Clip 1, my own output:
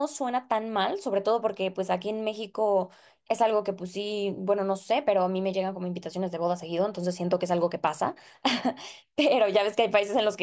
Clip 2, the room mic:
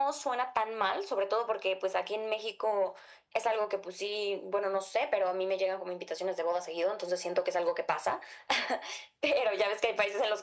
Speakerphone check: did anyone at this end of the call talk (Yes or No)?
No